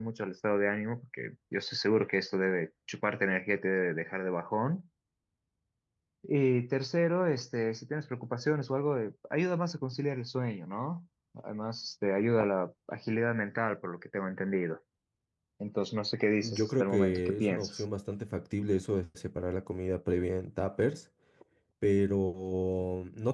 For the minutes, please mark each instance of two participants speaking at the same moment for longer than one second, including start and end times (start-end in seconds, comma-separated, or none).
16.4-17.8